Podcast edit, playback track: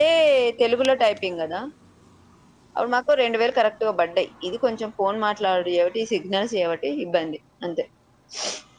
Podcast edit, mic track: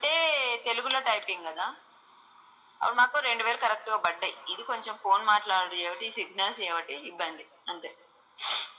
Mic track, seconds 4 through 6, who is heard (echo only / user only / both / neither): echo only